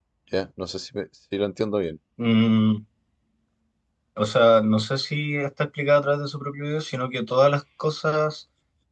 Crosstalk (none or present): none